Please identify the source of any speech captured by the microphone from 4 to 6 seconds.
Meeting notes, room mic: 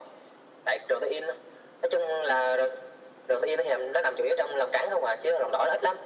echo only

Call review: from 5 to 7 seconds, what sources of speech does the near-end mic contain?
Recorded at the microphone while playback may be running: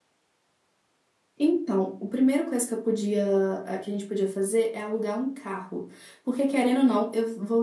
user only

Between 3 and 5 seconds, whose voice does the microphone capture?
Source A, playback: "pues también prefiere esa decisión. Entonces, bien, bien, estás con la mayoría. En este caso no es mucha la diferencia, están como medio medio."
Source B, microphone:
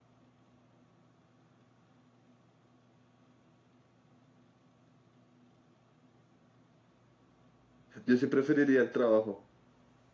neither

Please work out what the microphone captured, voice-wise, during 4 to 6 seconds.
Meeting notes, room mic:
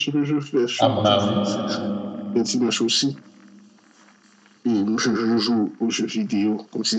echo only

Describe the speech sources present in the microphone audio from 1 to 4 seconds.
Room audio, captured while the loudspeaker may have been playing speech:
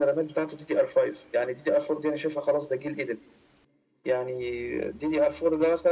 echo only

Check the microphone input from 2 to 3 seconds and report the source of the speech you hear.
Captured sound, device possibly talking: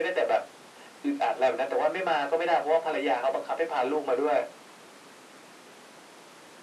echo only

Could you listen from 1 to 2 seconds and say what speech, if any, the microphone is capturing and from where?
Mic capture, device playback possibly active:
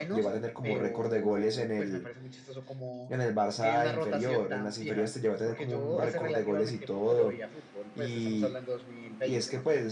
both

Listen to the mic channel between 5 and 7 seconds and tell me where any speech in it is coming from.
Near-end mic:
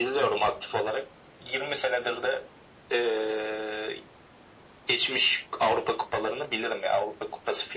echo only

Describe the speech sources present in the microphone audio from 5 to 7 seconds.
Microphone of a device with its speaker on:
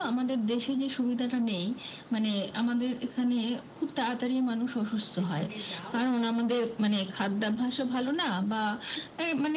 both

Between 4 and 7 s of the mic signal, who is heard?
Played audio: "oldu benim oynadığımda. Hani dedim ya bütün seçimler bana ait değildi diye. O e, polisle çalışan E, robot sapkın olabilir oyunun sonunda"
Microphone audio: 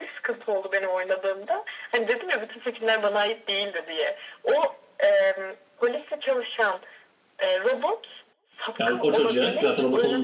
echo only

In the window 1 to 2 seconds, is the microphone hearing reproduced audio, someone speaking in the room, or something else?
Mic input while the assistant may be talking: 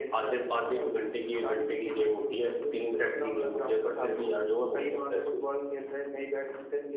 echo only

